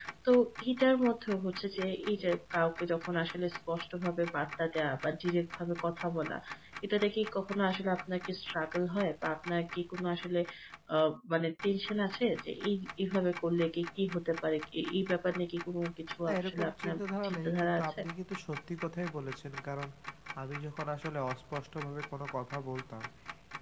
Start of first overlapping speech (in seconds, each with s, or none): 16.3 s